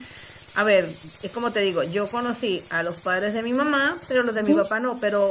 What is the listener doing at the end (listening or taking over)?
listening